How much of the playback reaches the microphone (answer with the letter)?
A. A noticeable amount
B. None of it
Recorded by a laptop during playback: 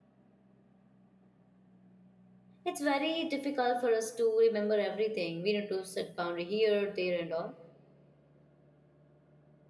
B